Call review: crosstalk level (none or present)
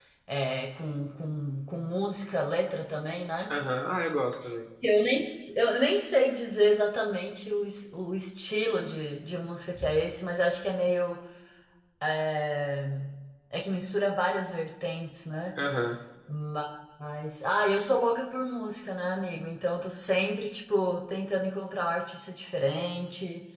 none